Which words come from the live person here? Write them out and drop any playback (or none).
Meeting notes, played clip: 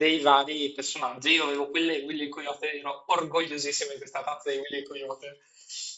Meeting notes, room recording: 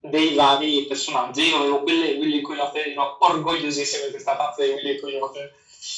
none